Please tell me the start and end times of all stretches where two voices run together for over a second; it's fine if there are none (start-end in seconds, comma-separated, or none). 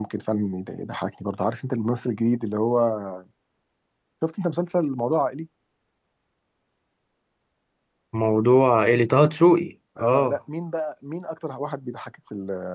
none